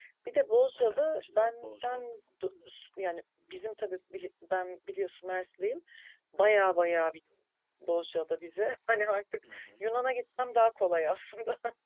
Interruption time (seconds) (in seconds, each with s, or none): 0.8 s